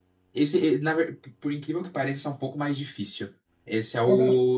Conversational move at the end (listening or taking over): listening